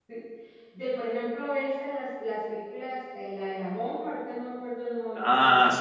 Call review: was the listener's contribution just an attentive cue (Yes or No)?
No